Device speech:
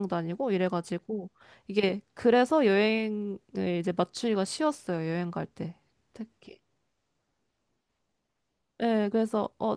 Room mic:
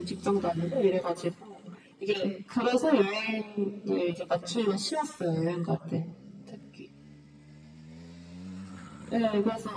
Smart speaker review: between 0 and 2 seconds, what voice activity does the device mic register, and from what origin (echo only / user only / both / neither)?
echo only